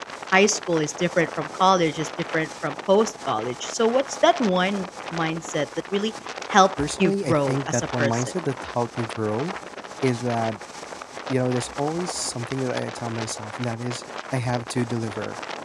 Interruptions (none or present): present